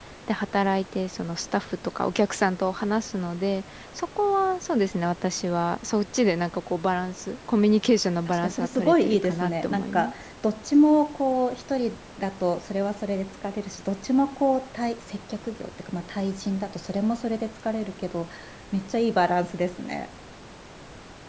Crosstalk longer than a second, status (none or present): present